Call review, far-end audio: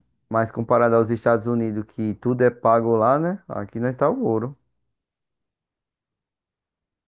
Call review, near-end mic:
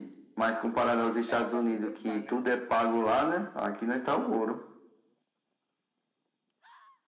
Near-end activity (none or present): present